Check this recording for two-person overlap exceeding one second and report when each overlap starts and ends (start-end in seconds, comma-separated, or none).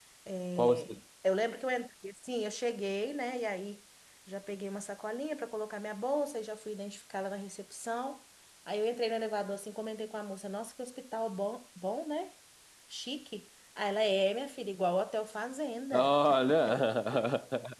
none